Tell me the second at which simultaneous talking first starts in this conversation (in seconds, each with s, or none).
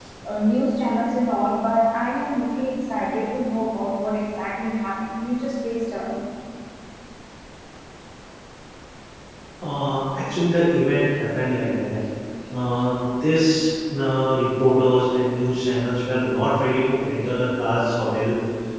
none